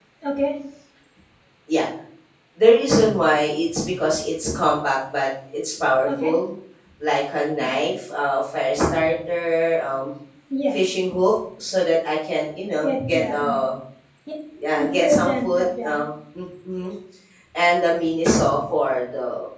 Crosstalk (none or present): present